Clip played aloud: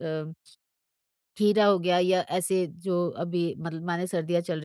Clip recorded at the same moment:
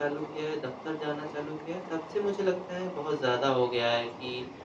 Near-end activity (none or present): present